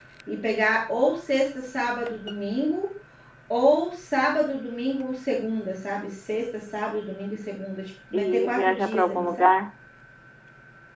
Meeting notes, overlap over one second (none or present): present